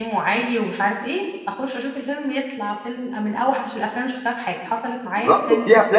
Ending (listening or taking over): taking over